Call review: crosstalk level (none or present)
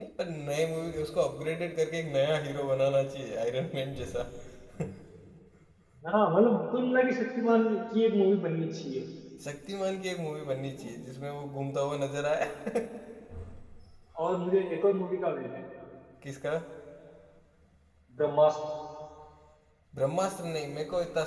none